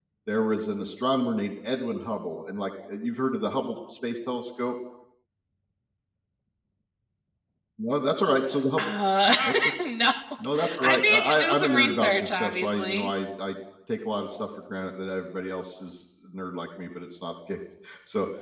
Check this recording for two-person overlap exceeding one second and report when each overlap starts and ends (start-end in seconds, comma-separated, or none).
10.8-13.1